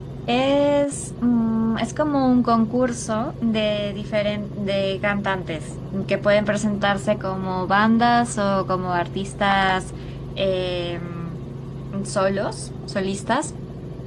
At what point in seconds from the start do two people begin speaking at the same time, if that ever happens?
none

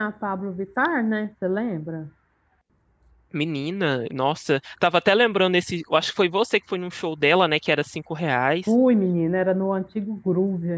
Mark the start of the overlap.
none

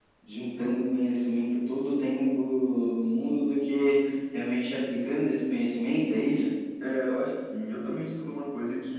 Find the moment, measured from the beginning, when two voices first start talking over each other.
none

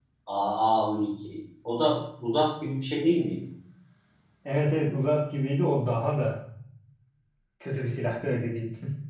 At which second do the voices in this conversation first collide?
none

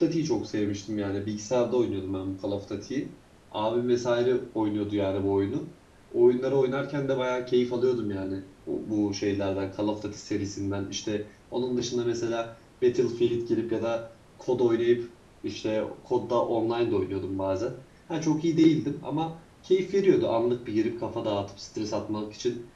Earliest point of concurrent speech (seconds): none

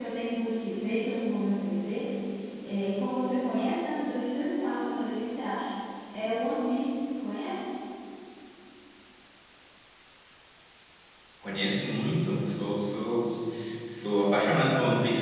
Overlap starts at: none

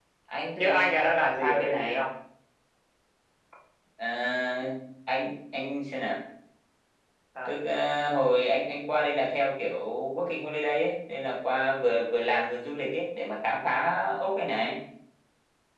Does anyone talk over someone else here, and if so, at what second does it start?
0.6 s

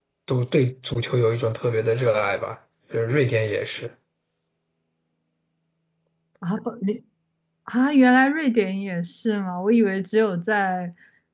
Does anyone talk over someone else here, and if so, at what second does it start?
none

